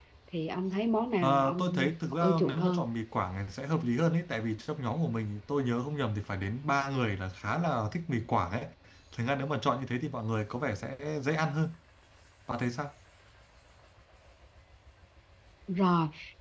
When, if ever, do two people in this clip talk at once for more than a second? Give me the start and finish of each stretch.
1.2-2.8

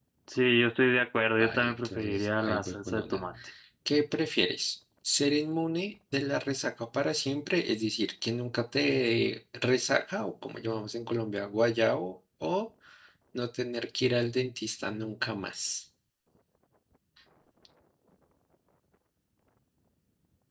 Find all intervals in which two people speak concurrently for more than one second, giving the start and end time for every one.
1.4-3.2

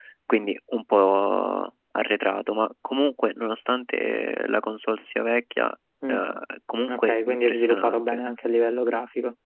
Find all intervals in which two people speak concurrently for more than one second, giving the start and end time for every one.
6.9-8.2

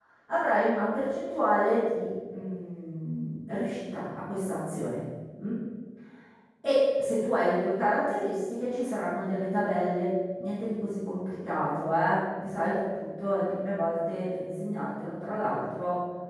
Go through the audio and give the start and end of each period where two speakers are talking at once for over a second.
none

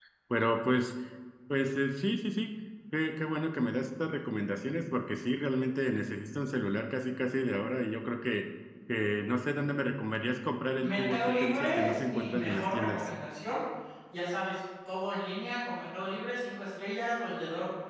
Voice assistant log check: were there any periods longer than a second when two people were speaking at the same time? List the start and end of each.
10.8-13.1

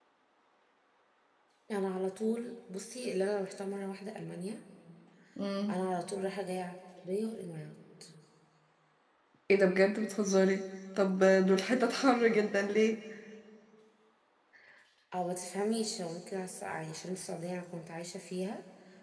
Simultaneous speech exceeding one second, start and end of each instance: none

